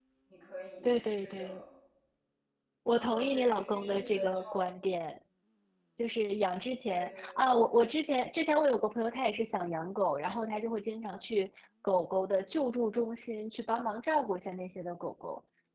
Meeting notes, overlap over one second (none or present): present